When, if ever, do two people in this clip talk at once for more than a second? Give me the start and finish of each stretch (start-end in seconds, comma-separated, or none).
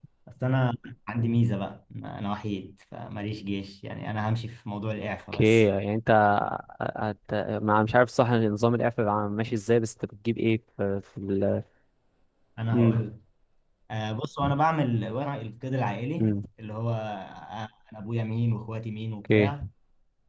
none